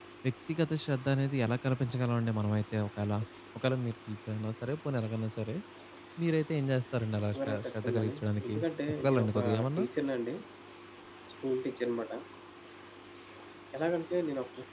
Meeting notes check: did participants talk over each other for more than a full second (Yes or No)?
Yes